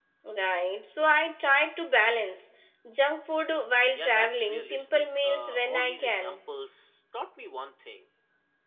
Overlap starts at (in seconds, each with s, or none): 4.0 s